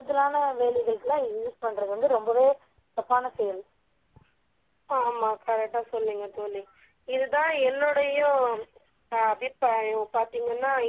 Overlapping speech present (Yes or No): No